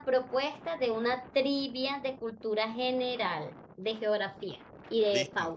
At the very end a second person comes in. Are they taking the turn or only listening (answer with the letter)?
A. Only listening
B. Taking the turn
B